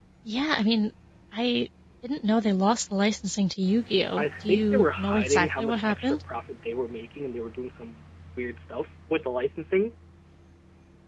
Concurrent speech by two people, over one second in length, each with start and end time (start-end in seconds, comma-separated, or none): 4.2-6.2